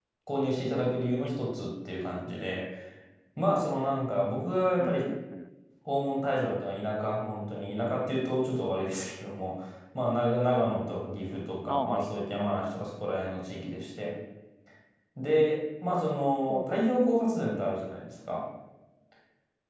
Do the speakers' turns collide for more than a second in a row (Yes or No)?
No